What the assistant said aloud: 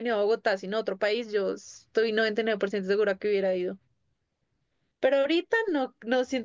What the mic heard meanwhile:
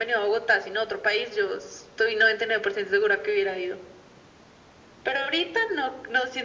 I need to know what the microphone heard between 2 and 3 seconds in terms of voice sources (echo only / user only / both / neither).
echo only